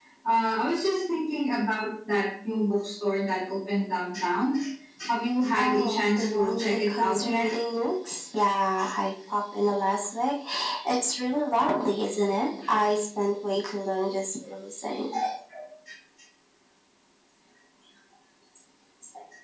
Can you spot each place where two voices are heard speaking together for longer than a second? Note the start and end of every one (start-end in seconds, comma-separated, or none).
5.6-7.5